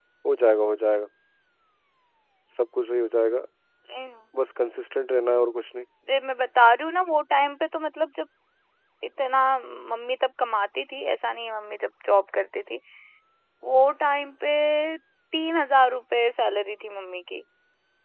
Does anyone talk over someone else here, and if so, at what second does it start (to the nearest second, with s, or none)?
none